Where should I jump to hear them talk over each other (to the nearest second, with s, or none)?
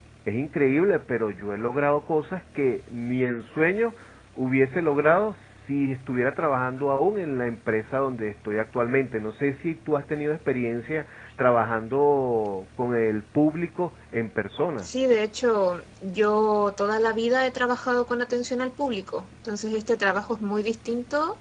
none